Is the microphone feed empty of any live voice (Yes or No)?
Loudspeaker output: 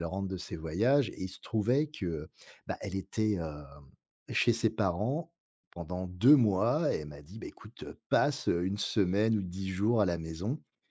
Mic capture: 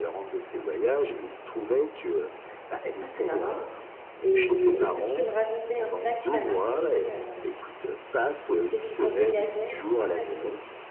No